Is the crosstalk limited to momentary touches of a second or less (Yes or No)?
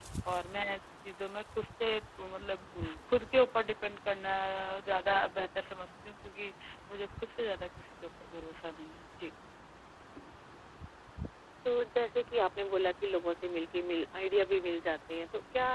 Yes